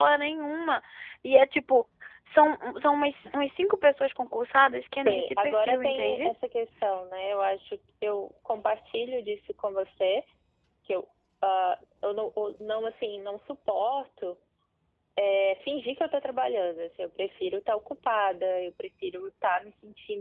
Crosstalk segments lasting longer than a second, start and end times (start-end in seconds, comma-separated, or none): 5.0-6.3